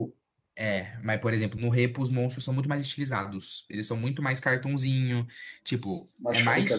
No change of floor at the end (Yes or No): Yes